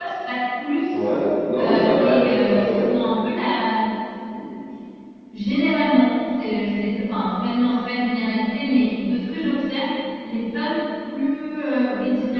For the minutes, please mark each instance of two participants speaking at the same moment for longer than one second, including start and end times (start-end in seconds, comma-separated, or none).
1.6-2.9